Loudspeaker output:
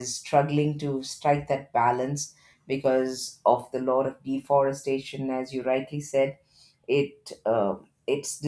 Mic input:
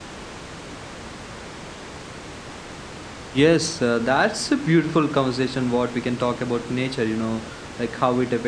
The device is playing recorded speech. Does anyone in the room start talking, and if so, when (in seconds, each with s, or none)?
3.3 s